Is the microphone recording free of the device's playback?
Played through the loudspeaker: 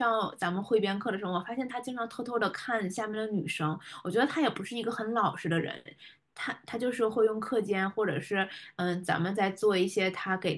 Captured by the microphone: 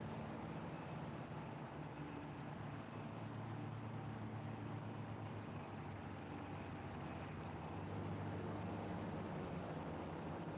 Yes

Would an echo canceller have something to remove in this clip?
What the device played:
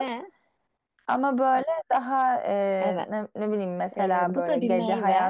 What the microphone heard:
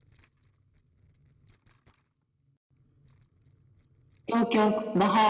No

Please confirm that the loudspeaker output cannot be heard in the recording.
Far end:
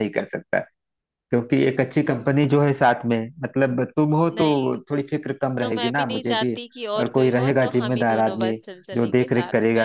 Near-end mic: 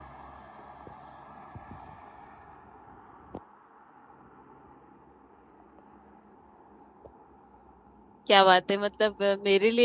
Yes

